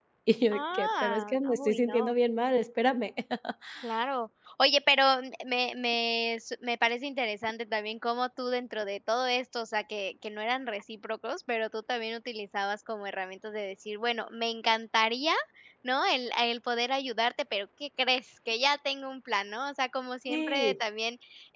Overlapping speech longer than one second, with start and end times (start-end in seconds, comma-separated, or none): 0.5-2.1